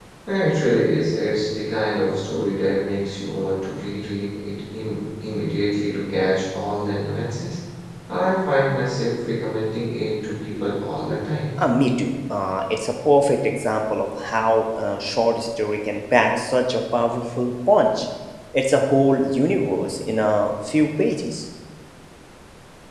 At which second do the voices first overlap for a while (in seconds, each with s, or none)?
none